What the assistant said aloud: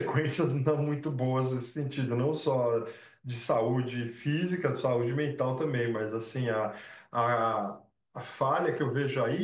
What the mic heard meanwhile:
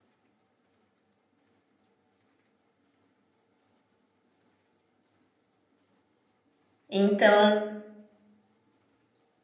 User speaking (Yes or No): Yes